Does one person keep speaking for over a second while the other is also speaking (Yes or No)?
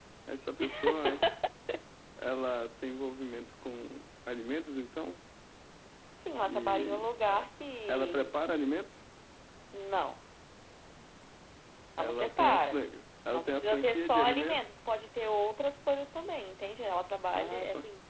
Yes